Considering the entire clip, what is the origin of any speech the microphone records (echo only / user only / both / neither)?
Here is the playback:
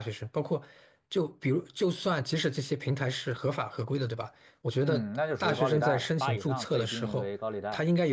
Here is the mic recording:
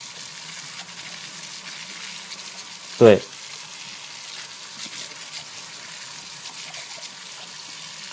user only